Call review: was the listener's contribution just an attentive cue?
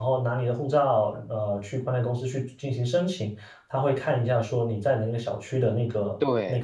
Yes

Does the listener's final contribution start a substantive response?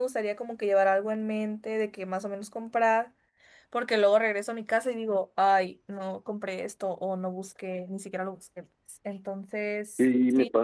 Yes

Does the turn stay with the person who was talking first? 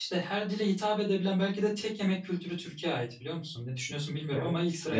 No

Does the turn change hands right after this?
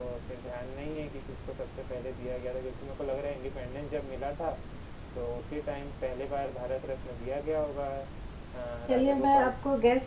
Yes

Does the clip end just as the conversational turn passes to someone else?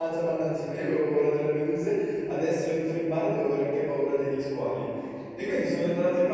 No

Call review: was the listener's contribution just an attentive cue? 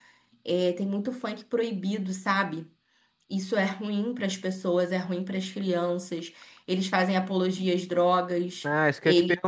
No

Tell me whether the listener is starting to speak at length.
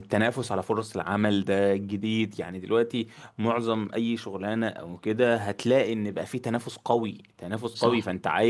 No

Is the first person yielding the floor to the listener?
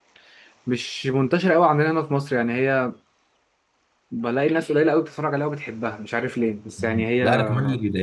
Yes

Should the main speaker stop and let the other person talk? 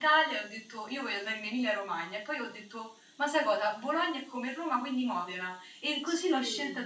No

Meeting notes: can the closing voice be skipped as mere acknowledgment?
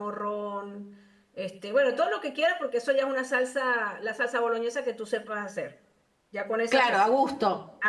No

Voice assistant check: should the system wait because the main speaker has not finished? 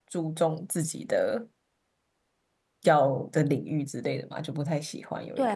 No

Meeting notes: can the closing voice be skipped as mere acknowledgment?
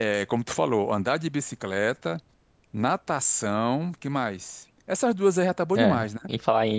No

